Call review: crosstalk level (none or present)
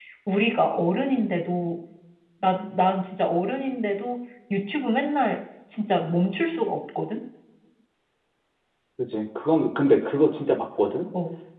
none